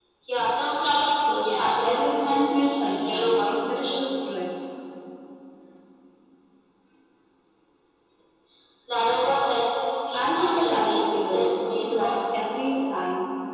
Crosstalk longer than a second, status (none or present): present